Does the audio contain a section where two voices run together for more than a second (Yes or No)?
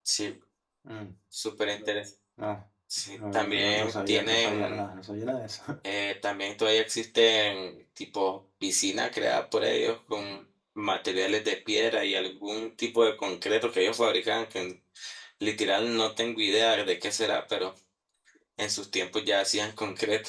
Yes